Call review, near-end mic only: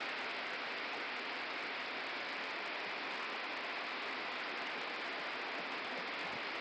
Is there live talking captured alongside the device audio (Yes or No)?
No